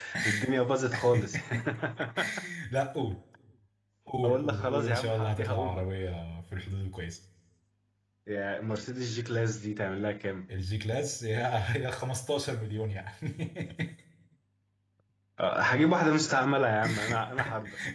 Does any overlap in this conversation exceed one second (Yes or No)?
Yes